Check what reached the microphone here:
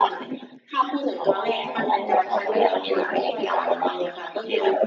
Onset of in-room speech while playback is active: none

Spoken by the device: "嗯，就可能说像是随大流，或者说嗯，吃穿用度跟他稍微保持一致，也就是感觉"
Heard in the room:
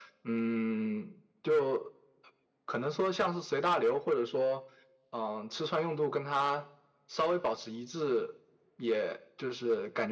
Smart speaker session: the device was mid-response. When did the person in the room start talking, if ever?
none

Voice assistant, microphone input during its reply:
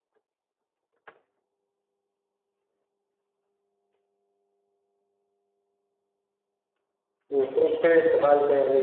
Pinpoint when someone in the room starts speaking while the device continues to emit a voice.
7.3 s

